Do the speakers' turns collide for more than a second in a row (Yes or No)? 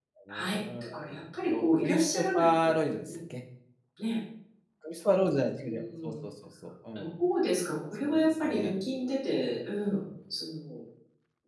Yes